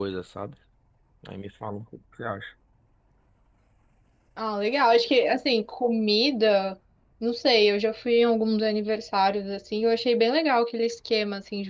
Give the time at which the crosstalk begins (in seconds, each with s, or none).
none